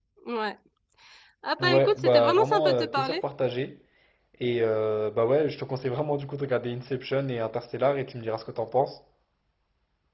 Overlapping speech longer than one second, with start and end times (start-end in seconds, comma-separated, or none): 1.6-3.2